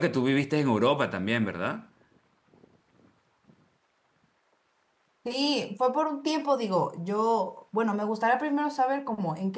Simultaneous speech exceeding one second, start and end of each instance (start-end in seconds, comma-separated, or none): none